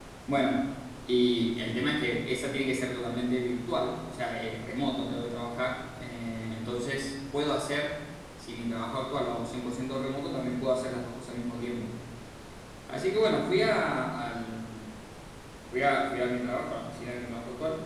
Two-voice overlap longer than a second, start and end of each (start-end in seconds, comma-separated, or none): none